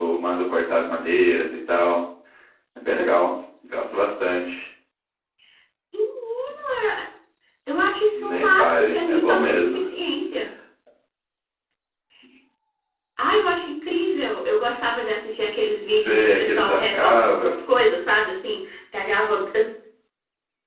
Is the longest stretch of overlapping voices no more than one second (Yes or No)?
No